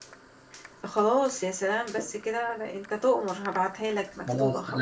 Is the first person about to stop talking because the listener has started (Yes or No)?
Yes